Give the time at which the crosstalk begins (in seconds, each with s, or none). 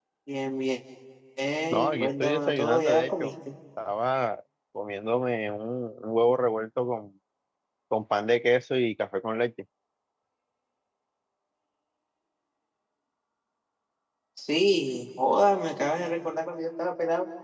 1.7 s